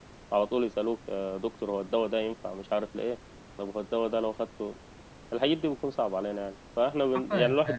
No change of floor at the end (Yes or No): Yes